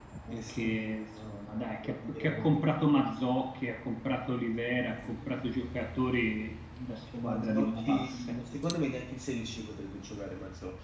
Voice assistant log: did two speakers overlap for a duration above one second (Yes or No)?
Yes